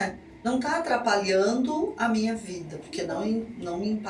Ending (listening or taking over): listening